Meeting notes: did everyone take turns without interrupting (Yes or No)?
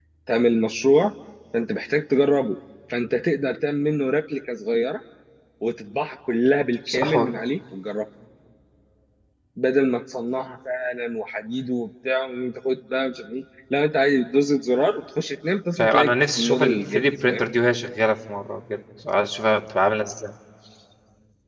No